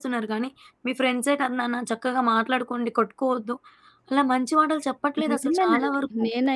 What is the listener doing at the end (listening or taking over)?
taking over